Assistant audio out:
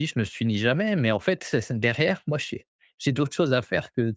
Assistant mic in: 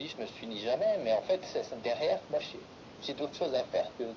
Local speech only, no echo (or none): none